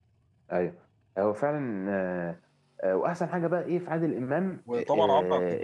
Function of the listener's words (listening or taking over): taking over